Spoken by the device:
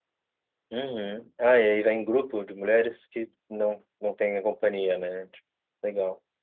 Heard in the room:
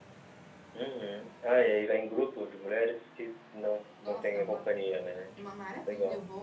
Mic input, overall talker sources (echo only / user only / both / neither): both